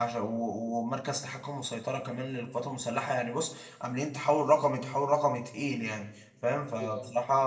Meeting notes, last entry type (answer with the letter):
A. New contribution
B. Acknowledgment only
B